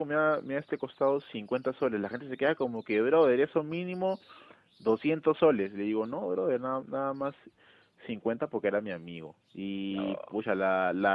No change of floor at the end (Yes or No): Yes